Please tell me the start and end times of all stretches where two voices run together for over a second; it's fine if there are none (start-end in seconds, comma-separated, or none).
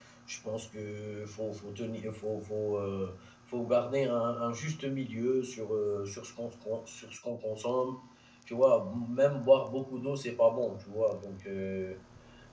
none